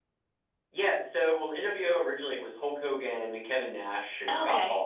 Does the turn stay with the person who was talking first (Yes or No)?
Yes